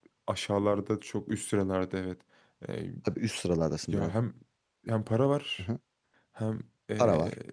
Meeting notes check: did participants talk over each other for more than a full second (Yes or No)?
No